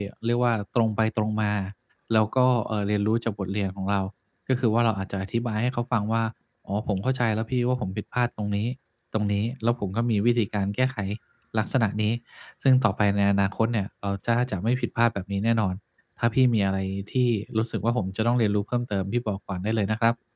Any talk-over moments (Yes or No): No